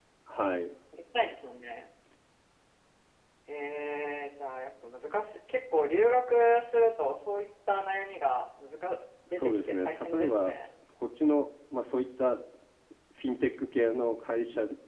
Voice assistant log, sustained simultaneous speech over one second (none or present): present